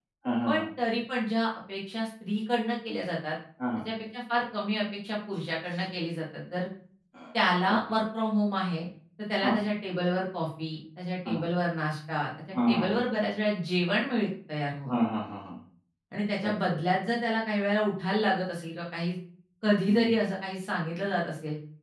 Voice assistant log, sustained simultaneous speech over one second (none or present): none